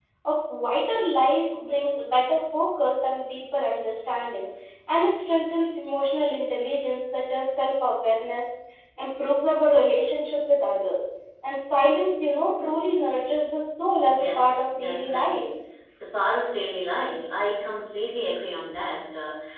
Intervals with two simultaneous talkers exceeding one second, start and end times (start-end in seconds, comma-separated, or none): 14.1-15.4